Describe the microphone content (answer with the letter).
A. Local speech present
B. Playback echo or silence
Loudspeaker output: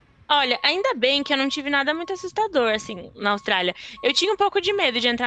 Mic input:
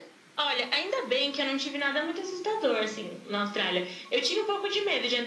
B